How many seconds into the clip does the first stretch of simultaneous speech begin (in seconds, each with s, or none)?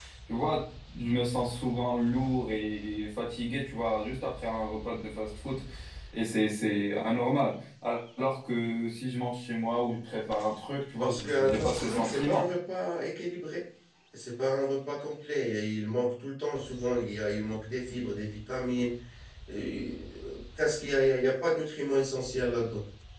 11.0 s